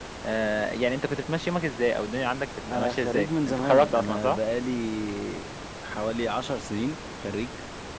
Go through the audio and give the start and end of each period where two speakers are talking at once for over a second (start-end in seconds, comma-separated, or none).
2.7-4.4